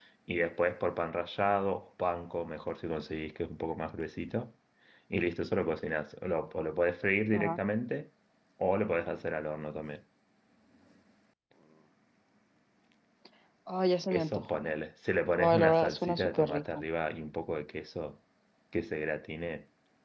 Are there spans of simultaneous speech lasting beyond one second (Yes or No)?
Yes